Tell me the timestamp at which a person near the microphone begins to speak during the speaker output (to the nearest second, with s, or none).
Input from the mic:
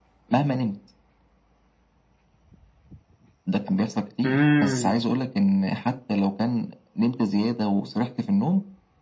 4 s